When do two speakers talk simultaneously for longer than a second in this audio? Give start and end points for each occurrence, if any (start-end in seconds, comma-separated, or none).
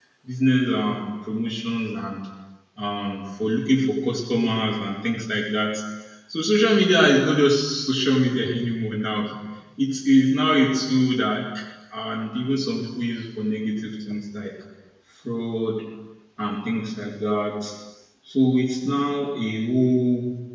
none